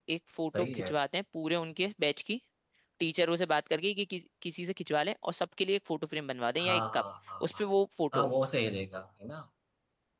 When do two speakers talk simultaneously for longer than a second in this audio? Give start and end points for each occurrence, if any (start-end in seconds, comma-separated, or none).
none